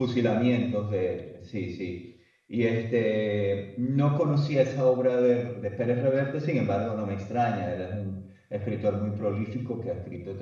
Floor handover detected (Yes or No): No